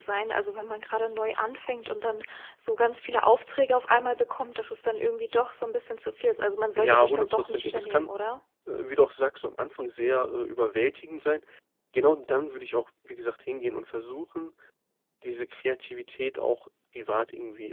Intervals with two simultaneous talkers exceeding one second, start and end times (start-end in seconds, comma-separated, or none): 6.8-8.1